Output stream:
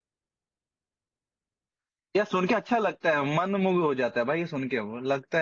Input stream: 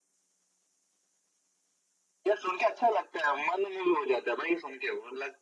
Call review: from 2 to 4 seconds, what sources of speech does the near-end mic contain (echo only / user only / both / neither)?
echo only